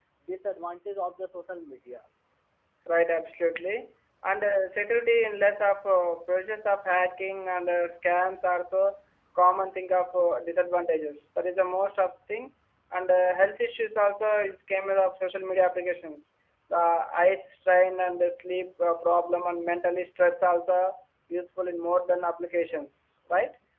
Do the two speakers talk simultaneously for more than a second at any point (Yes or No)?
No